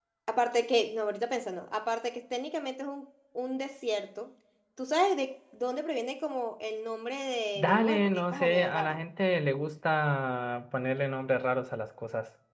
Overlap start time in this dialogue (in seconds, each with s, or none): 7.5 s